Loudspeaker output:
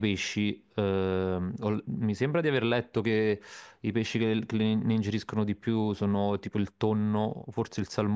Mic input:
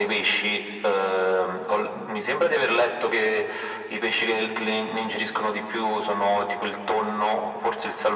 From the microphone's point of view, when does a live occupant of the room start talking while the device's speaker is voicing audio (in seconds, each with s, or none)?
none